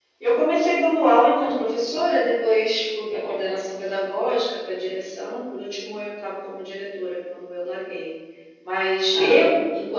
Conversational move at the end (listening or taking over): listening